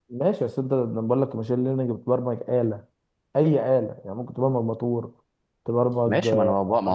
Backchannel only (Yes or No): No